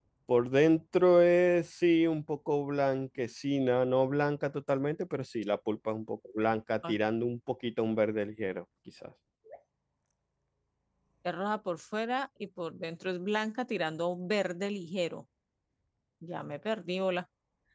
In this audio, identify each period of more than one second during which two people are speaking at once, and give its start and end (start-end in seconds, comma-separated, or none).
none